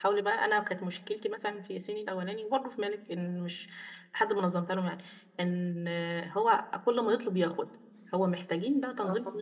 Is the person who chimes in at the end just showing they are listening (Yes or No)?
Yes